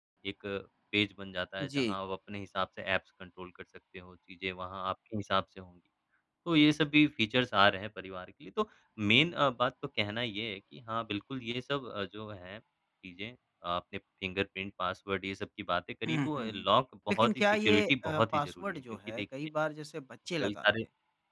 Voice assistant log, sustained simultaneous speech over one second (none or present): present